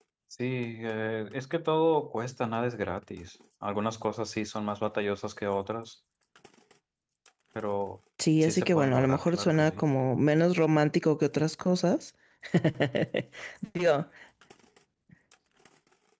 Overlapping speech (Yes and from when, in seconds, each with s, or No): Yes, from 8.4 s